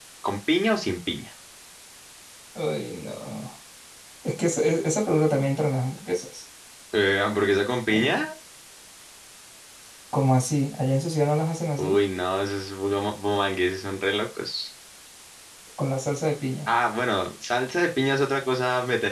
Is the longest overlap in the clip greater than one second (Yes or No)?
No